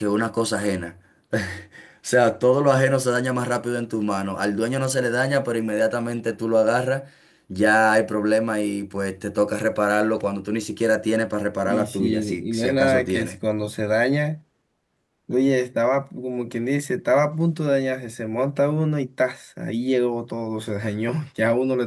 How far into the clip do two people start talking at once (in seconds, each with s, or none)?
11.6 s